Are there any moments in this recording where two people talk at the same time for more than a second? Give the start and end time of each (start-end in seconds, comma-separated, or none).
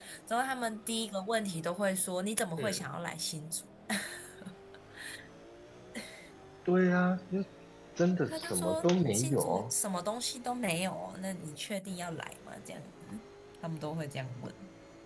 8.3-9.7